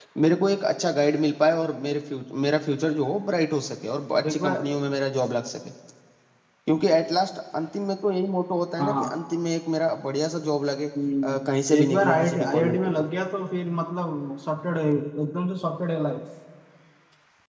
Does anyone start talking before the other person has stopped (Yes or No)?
Yes